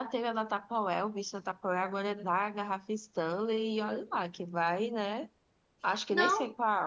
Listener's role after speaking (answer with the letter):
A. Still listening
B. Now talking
B